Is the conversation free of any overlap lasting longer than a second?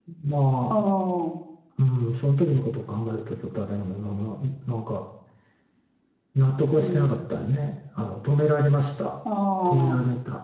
Yes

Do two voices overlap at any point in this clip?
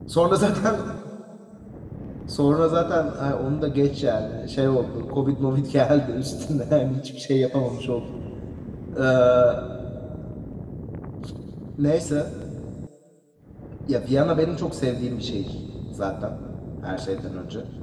No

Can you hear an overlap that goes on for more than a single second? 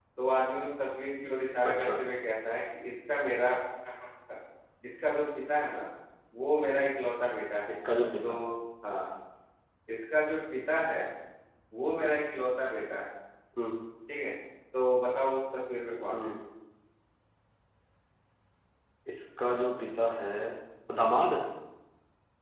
No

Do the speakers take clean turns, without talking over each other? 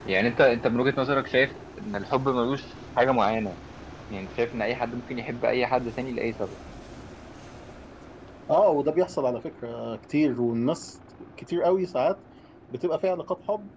Yes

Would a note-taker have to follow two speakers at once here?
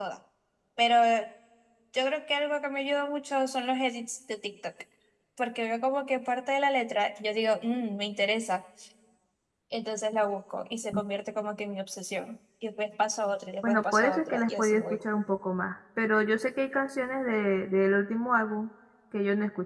Yes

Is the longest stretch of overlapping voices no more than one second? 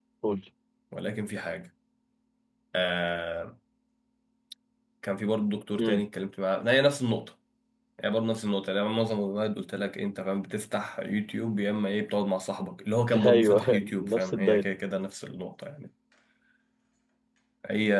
No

